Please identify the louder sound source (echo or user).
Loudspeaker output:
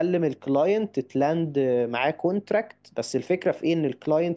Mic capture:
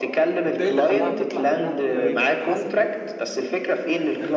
echo